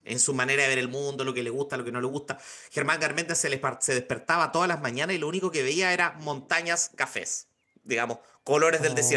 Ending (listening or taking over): taking over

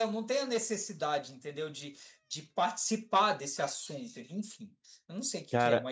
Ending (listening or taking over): taking over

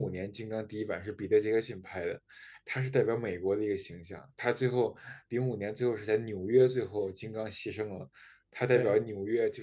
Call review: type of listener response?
listening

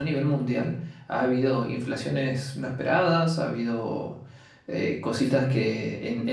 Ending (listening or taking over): listening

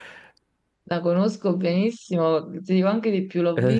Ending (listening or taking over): listening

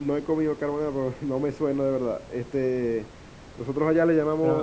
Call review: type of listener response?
listening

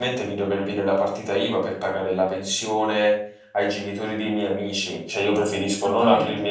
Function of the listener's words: listening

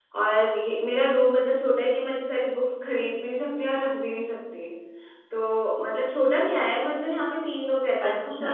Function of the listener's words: listening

